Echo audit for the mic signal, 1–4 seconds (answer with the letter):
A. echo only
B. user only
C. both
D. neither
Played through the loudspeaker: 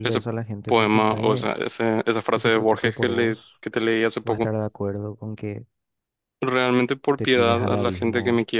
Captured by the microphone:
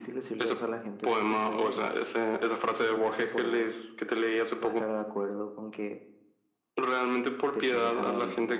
A